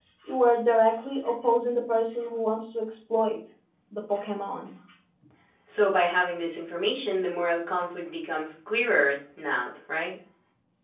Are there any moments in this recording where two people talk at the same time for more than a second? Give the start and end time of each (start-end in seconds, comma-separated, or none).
none